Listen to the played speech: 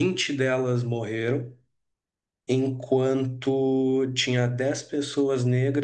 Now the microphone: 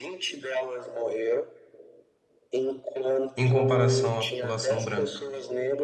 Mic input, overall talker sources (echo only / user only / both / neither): both